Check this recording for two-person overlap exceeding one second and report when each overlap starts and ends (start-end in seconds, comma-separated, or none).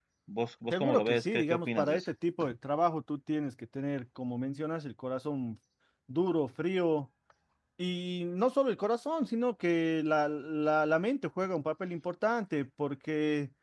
0.7-2.1